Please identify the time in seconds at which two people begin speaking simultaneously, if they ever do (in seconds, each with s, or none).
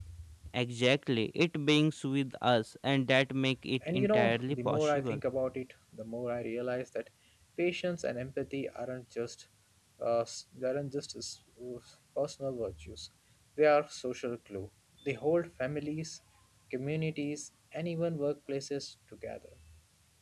3.8 s